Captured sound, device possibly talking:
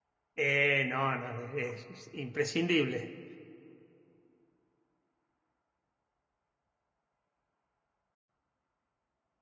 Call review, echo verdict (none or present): none